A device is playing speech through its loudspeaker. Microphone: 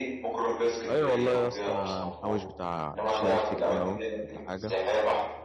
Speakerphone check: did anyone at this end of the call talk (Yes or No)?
Yes